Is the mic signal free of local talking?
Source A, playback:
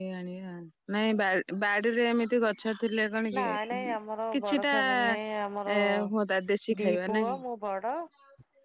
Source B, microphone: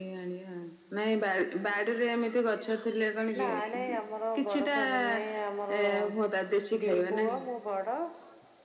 Yes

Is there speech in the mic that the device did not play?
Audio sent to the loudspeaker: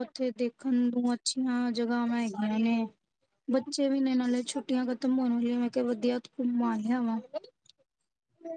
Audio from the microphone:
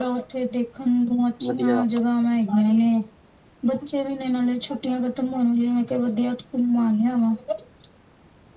Yes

